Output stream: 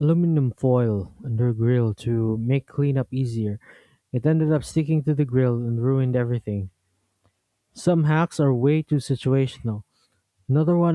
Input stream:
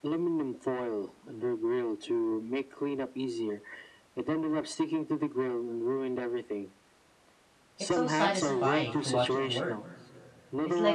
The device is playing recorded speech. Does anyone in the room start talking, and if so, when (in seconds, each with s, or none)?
7.8 s